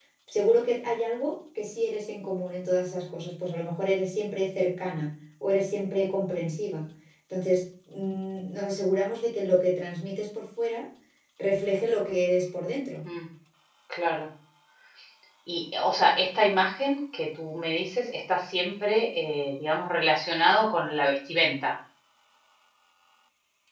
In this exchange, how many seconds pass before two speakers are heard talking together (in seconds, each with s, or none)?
none